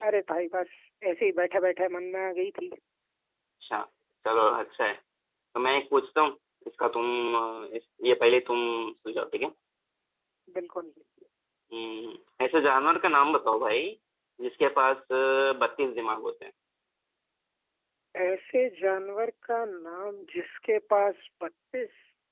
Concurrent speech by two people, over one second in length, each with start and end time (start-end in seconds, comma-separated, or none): none